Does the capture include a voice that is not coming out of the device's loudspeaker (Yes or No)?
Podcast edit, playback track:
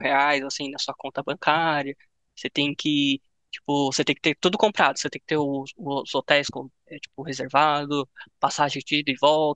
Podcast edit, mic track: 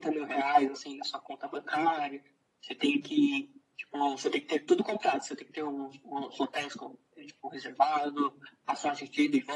No